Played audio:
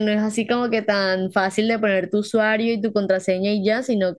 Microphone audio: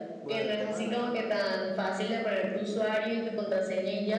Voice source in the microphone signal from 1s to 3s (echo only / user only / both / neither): both